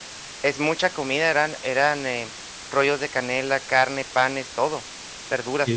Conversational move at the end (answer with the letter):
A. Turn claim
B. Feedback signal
A